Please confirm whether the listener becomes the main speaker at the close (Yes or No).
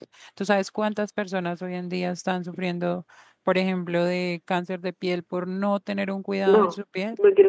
Yes